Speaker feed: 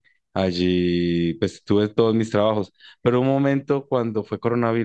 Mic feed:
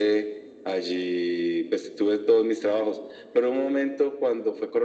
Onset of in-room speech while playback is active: none

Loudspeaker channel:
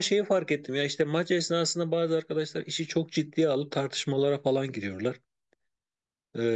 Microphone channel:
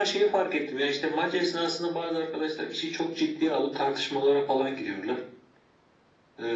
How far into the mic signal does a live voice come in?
none

